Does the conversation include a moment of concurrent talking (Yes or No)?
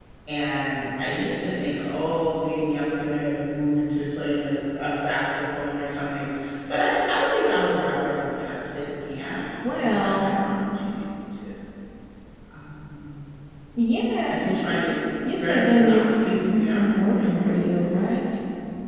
Yes